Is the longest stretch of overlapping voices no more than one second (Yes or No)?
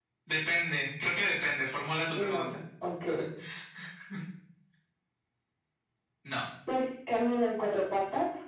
Yes